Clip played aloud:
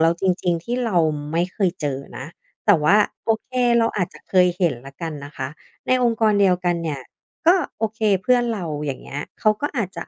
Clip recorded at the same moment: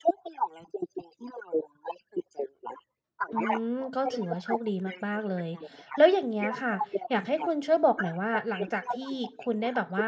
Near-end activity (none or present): present